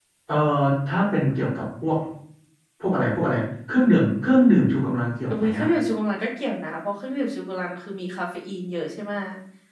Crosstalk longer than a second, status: none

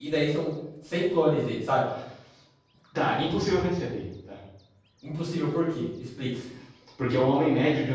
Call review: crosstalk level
none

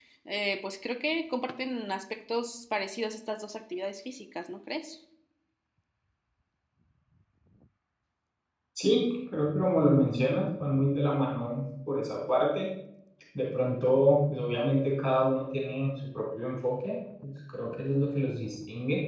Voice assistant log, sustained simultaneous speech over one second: none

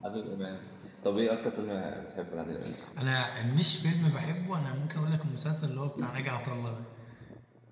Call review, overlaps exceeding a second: none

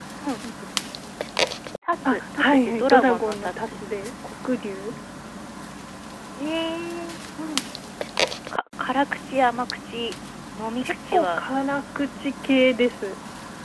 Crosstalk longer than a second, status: present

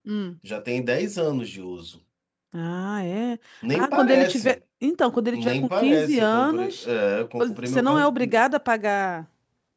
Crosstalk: present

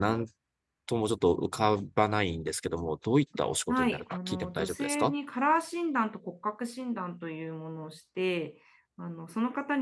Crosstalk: present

